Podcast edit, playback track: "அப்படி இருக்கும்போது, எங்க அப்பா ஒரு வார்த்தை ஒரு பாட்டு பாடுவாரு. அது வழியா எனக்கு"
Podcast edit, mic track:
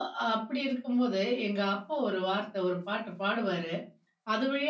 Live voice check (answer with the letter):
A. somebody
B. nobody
B